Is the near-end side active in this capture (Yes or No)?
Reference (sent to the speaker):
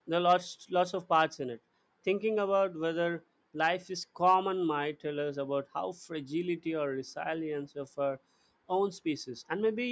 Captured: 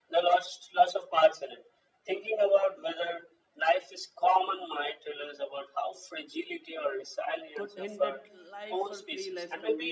Yes